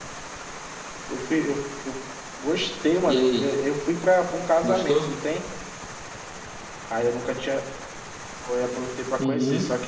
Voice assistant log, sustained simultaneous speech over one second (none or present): none